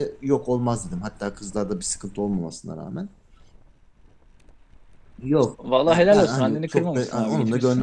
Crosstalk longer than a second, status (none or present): present